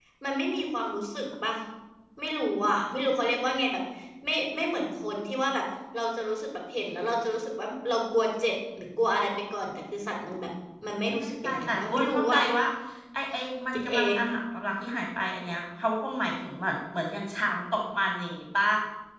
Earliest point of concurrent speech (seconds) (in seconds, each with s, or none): 11.1 s